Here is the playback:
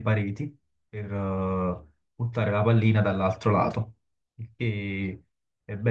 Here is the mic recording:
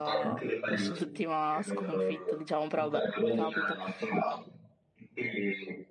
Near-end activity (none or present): present